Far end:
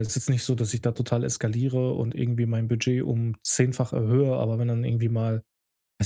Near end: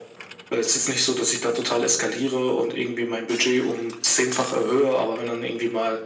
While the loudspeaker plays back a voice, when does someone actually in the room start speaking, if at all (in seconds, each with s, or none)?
none